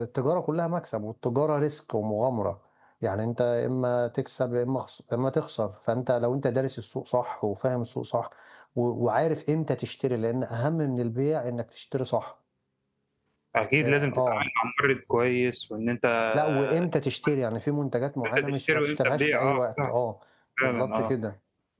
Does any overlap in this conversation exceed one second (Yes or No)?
Yes